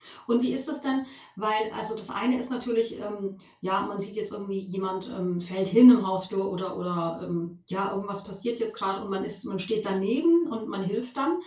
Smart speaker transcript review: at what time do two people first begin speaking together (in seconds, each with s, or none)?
none